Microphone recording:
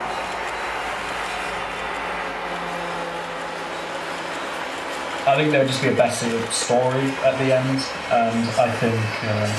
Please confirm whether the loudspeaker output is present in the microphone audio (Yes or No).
No